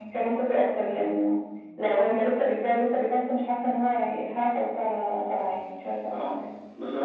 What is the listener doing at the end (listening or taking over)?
taking over